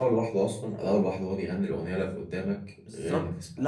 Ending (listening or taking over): taking over